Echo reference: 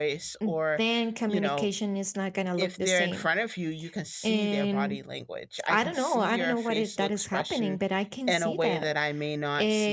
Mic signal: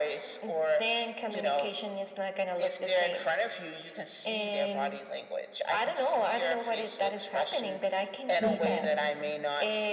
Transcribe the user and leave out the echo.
Mhm.

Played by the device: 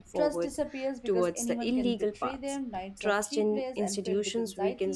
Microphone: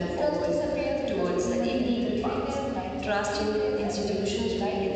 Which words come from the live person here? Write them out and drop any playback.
none

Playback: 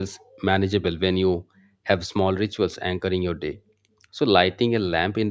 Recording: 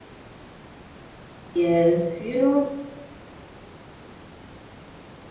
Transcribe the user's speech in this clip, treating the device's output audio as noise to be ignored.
Yes, you know,

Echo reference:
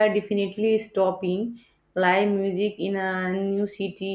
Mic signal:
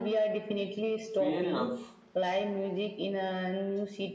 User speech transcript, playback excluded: Fair enough.

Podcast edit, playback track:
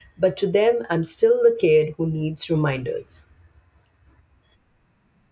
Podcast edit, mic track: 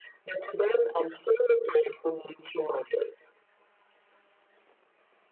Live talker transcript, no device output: none

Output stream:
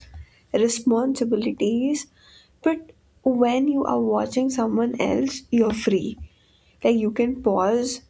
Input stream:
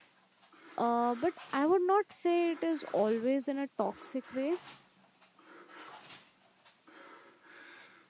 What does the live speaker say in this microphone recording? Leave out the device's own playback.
uh, but I would not say it is always in a toxic way.

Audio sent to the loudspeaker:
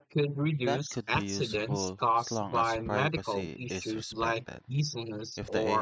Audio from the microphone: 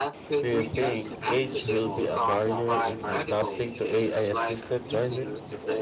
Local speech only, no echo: Do you think age will be a barrier in adapting to AI assisted driving?

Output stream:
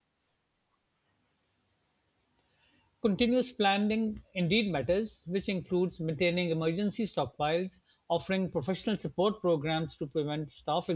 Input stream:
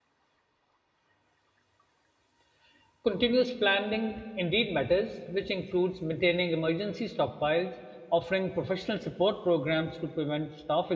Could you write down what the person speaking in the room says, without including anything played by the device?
none

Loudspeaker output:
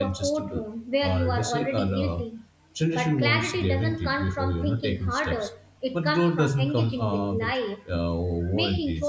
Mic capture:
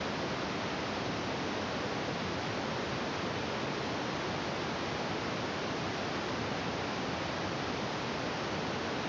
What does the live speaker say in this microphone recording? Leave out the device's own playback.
none

